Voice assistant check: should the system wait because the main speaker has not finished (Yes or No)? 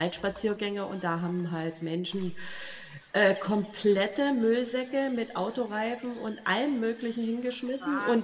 Yes